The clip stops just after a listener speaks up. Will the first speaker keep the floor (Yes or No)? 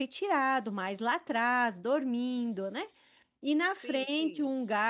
Yes